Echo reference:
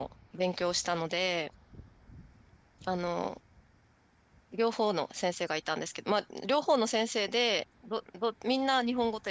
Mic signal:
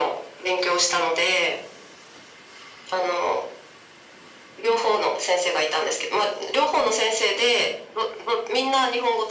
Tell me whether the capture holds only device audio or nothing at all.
Yes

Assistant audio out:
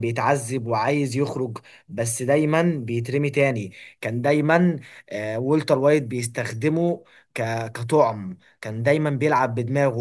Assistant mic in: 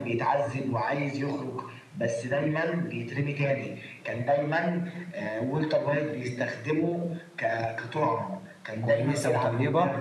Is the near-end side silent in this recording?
No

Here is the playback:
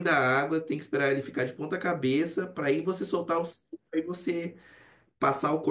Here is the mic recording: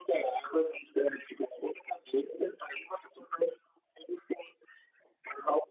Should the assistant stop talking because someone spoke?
No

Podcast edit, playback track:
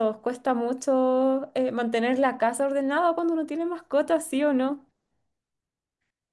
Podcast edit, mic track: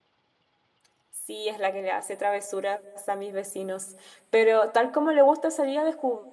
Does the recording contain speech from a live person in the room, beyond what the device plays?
Yes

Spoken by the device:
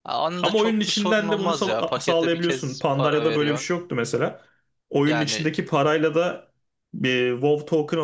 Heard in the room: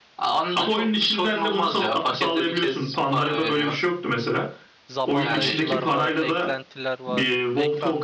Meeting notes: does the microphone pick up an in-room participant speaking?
Yes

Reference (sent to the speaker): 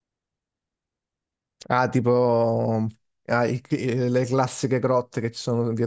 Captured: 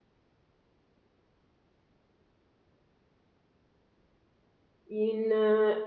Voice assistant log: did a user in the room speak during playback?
Yes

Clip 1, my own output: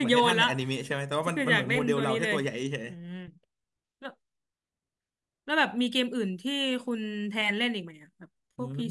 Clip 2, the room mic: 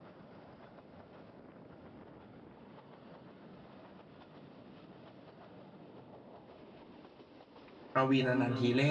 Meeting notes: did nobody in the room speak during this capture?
No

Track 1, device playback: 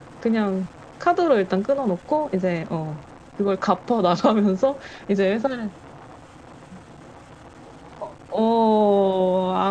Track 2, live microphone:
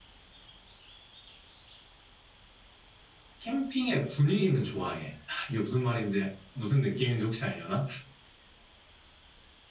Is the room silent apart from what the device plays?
No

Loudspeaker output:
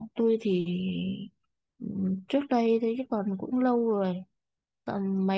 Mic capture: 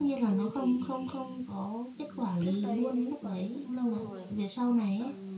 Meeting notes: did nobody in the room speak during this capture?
No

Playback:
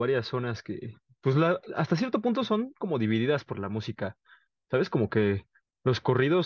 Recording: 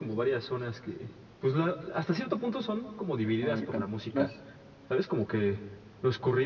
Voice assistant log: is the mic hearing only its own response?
No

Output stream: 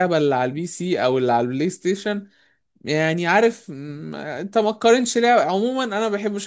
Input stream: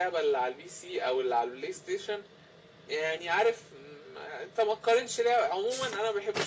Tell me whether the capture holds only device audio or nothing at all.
Yes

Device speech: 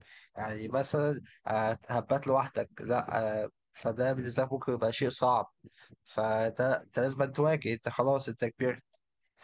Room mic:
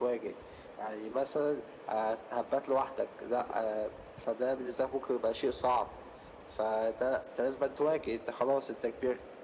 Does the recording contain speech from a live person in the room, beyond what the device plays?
No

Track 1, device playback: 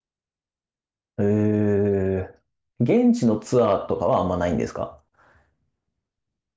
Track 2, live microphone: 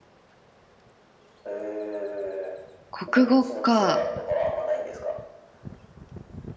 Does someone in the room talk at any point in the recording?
Yes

